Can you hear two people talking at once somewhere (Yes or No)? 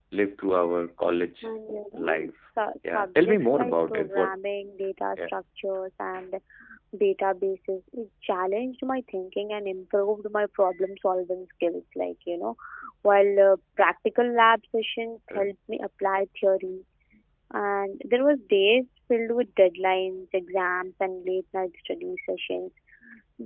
Yes